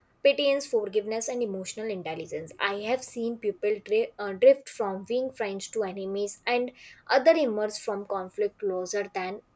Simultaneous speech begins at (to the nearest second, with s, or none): none